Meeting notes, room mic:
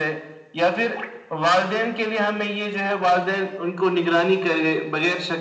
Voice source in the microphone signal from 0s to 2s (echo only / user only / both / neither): echo only